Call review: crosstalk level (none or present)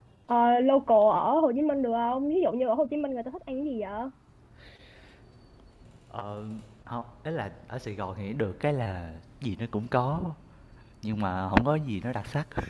none